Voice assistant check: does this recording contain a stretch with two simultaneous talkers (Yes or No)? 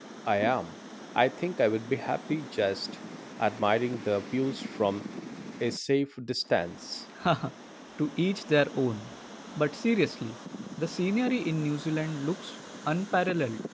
No